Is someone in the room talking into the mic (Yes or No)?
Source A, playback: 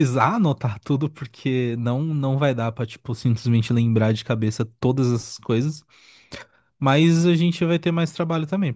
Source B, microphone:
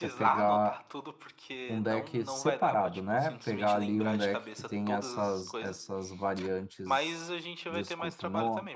Yes